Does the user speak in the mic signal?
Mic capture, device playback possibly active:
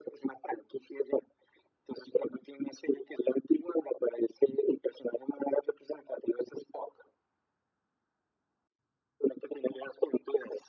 No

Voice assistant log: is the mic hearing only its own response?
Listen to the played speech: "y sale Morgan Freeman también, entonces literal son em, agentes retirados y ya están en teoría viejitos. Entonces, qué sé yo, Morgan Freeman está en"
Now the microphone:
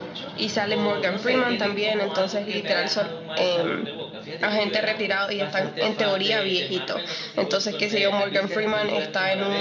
No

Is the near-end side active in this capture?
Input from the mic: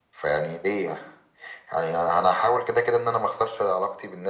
No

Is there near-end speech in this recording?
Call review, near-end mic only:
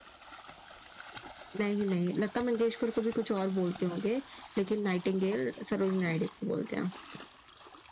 No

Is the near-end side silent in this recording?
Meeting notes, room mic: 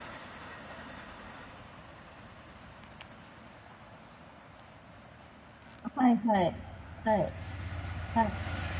No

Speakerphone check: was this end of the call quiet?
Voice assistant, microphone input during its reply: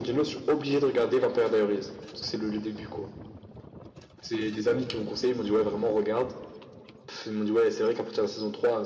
Yes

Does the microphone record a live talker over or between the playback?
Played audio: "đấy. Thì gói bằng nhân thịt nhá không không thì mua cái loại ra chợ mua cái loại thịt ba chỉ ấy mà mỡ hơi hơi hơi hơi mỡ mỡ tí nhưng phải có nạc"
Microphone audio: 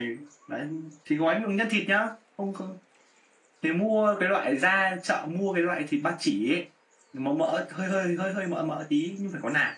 No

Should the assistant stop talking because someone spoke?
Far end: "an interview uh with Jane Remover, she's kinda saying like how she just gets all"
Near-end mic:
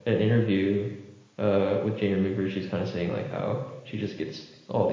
No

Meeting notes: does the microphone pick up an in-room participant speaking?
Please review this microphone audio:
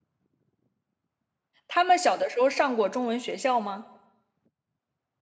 Yes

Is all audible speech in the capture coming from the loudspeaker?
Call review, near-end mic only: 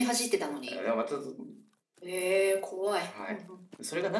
Yes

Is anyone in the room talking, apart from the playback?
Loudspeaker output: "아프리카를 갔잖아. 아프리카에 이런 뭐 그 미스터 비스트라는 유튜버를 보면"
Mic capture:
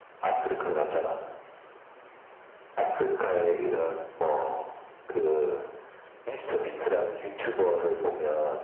No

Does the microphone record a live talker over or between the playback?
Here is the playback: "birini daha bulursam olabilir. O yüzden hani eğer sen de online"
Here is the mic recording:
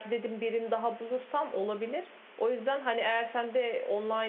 No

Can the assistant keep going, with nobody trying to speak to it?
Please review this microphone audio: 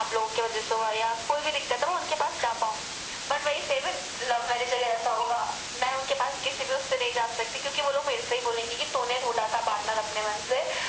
Yes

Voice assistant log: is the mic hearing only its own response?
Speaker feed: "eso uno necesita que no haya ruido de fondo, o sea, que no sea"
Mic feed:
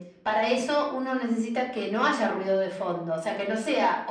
Yes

